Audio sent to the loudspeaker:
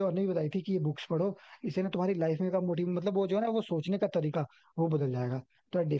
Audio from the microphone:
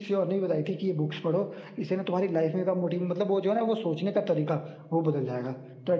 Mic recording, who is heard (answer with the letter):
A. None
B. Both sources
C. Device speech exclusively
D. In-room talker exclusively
C